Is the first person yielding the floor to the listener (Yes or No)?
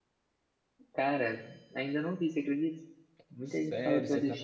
Yes